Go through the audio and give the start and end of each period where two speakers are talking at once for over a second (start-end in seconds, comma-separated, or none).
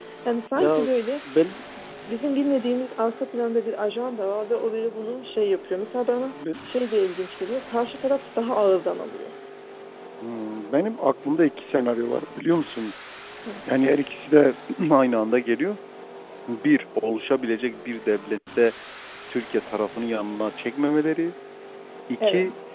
none